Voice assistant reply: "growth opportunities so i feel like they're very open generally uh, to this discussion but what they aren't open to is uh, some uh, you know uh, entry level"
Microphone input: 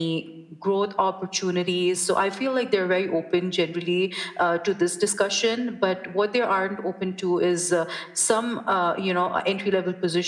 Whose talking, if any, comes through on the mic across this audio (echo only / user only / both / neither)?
echo only